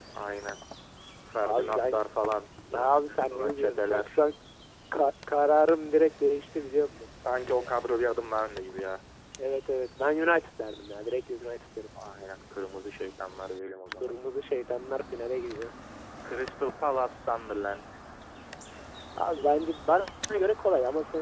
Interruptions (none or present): present